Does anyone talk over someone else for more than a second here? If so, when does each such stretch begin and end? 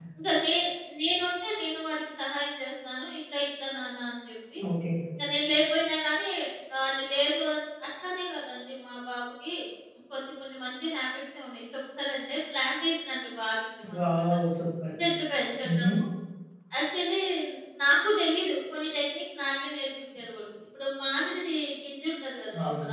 none

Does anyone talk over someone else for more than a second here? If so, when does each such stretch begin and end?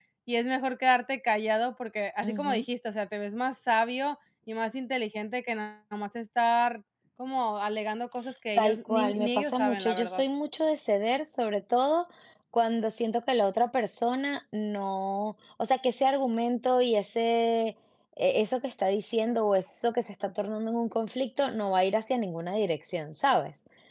8.6-10.2

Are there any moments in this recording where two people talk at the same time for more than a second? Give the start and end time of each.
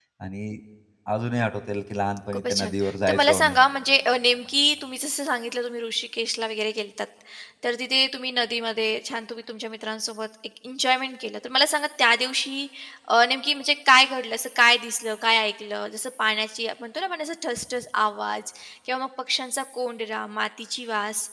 2.3-3.6

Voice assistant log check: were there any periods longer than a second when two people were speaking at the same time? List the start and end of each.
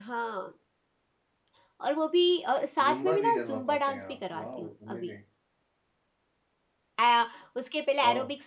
2.8-5.2

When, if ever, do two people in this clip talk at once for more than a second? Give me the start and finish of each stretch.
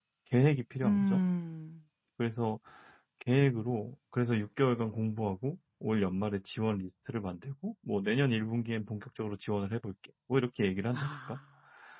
none

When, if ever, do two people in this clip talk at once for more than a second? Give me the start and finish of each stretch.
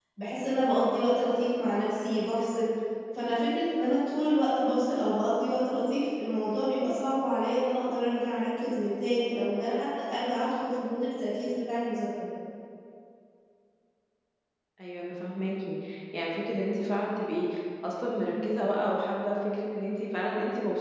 none

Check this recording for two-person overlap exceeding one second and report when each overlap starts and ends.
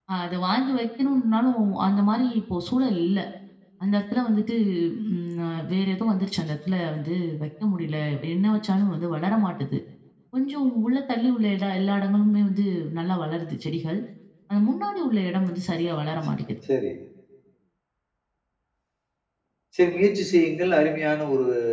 none

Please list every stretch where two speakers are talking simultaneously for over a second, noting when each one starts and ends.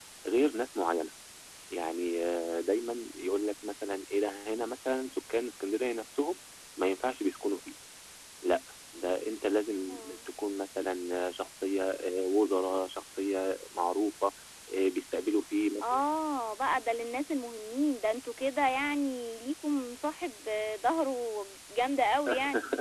none

